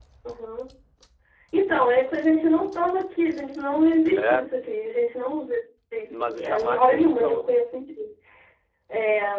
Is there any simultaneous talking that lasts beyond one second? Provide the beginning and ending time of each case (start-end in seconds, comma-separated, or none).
6.1-7.5